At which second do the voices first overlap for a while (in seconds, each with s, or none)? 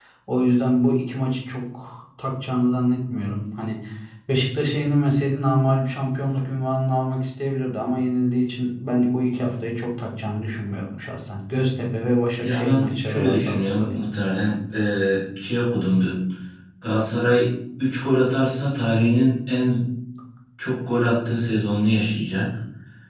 12.4 s